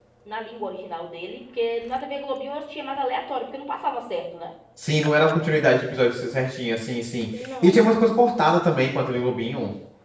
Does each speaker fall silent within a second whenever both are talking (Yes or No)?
Yes